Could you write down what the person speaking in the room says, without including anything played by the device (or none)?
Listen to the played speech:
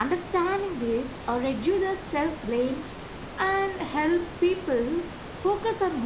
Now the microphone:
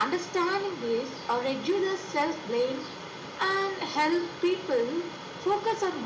none